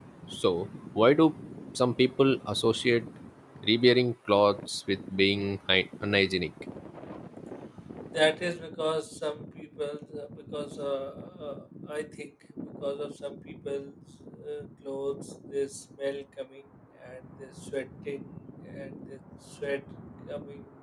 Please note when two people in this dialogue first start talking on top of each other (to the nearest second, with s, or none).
none